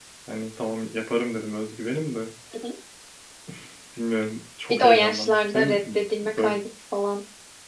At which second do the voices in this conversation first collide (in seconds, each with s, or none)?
4.7 s